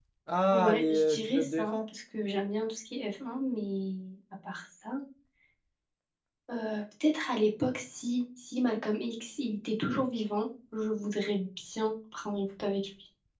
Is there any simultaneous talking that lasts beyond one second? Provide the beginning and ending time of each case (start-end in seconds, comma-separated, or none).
0.5-1.9